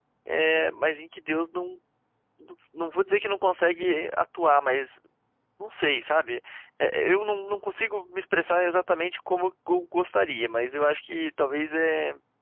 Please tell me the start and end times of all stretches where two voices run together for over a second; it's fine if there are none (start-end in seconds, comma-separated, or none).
none